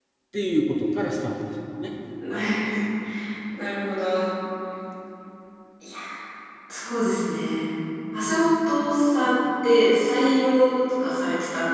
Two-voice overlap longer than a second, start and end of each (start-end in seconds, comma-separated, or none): none